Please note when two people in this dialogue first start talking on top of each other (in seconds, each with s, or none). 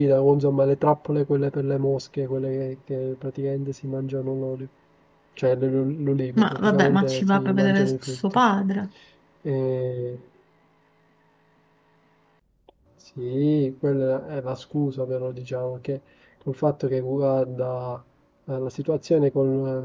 6.4 s